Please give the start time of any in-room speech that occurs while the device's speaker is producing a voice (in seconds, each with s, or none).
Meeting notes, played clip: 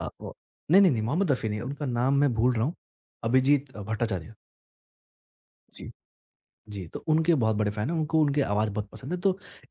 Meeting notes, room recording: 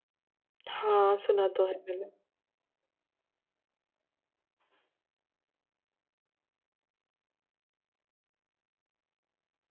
0.7 s